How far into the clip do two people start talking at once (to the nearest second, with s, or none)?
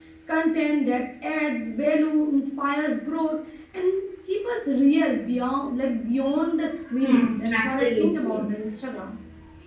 7 s